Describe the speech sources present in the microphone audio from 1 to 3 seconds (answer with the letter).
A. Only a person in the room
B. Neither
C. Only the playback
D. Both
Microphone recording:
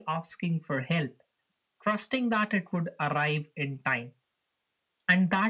C